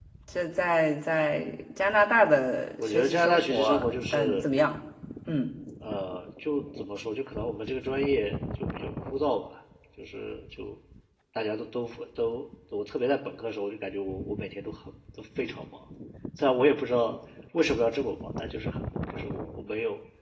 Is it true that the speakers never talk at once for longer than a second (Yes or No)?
No